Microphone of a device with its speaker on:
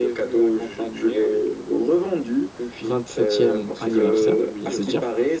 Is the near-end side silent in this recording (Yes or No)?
No